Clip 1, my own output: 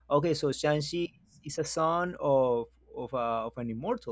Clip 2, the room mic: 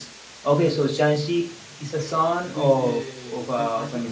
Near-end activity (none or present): present